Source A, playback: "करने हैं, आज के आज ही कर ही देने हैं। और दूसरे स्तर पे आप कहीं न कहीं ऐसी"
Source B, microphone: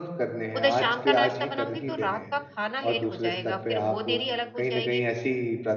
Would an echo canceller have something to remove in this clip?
Yes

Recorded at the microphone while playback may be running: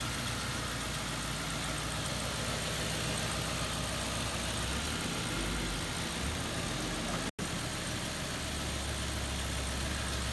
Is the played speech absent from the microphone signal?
Yes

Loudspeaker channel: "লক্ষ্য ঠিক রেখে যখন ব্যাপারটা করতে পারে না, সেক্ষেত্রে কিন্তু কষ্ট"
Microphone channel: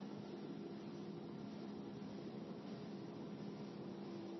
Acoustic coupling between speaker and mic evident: No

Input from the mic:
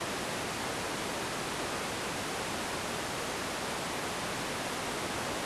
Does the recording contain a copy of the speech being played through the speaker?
No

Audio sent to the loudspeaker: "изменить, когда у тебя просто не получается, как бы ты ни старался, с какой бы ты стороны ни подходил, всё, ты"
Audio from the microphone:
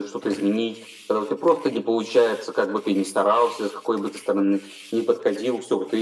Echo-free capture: No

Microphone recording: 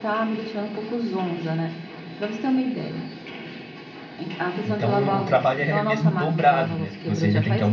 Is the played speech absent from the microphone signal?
No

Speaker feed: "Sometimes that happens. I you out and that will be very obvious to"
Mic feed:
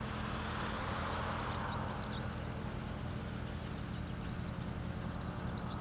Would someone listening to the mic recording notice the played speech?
No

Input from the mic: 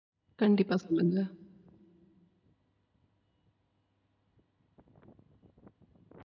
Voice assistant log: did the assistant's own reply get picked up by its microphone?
No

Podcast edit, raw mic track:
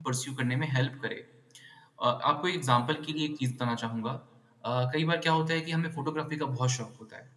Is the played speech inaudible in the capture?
Yes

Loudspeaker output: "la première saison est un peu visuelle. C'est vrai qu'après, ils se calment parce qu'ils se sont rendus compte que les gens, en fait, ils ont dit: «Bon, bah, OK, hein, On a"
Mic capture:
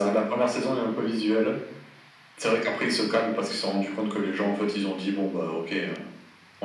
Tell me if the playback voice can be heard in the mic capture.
Yes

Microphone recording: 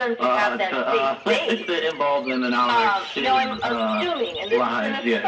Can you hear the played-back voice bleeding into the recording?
Yes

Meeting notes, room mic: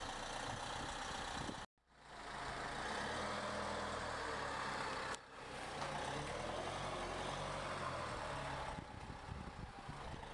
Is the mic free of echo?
Yes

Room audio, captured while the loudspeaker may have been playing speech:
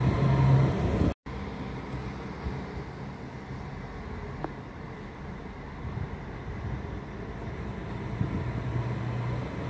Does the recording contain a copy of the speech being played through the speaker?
No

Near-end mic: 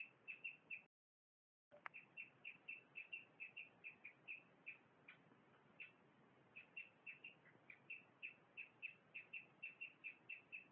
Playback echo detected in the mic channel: No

